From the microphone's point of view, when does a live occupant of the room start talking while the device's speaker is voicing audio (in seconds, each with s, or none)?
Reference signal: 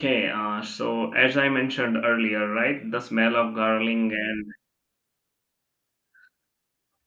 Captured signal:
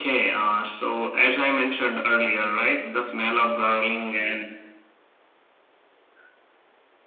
none